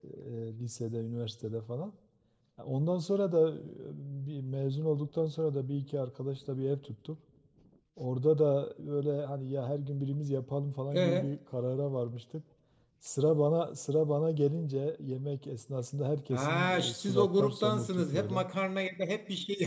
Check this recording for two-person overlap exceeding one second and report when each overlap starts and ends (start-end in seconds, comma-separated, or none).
16.3-18.5